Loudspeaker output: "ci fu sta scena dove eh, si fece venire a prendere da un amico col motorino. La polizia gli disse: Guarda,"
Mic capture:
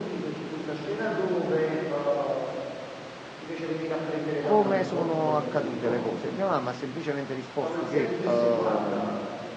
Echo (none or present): present